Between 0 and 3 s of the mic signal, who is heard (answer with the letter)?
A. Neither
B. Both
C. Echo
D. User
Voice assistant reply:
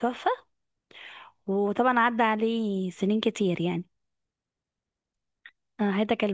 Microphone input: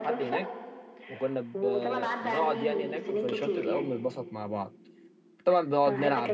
B